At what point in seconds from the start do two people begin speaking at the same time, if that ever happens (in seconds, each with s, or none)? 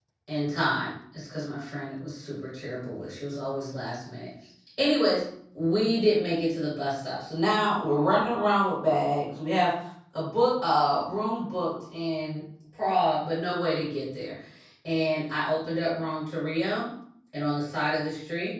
none